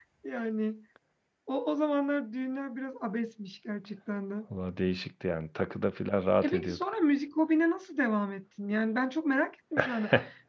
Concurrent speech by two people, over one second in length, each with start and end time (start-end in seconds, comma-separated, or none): none